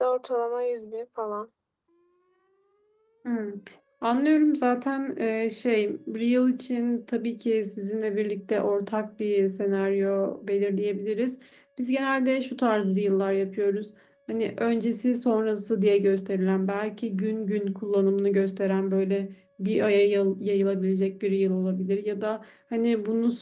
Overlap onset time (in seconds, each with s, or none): none